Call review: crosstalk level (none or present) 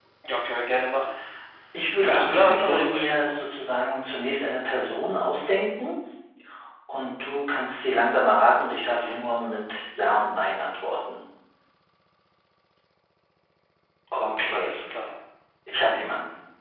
present